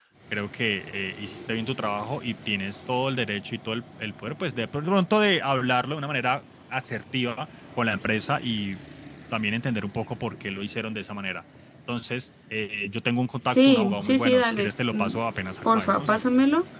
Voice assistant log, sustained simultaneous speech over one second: present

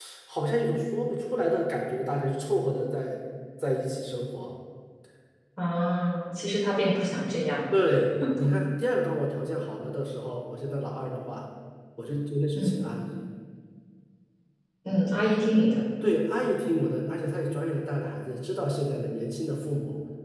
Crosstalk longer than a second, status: none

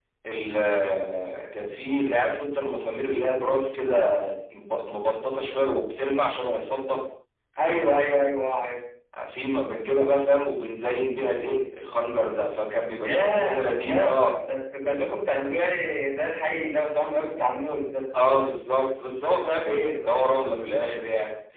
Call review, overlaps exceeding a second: present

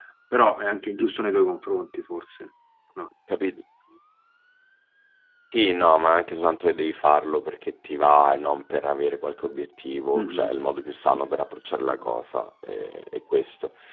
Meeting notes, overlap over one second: none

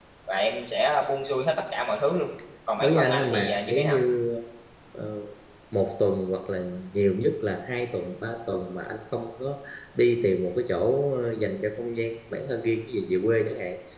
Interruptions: present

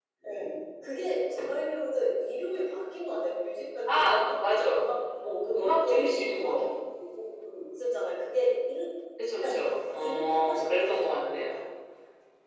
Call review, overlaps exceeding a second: present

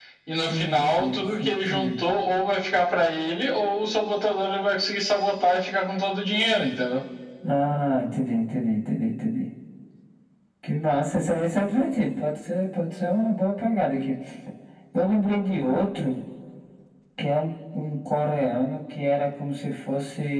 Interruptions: present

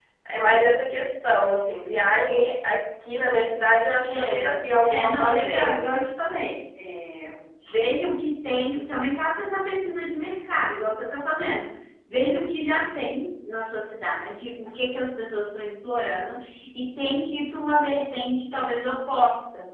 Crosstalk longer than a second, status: present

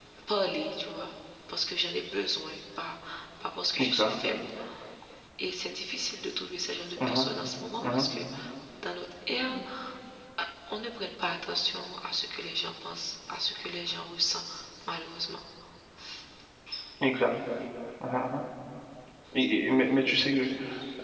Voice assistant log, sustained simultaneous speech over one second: none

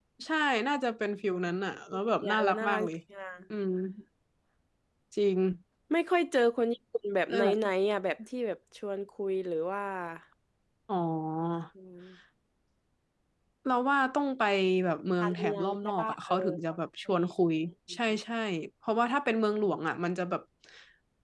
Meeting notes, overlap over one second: present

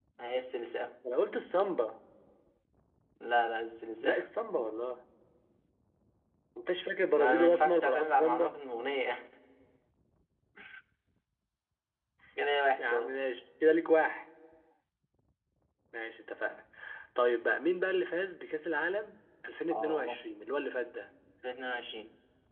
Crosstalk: present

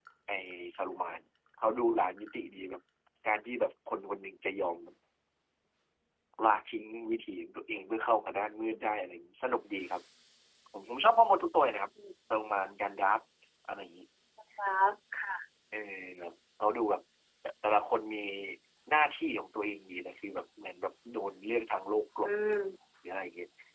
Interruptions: none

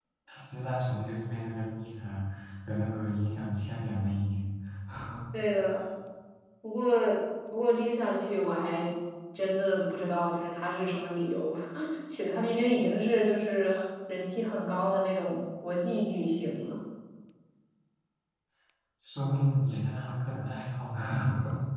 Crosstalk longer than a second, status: none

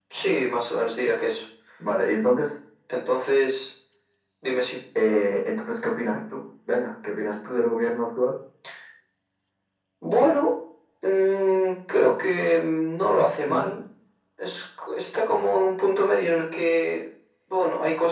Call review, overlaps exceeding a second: none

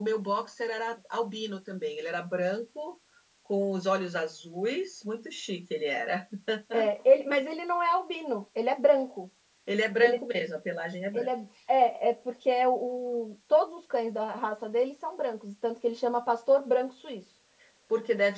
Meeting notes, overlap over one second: none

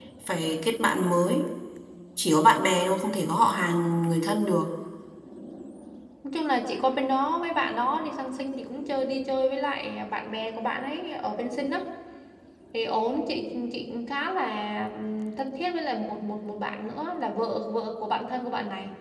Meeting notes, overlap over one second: none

